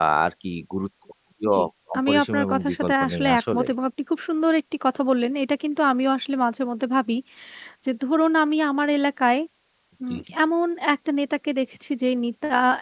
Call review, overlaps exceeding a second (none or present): present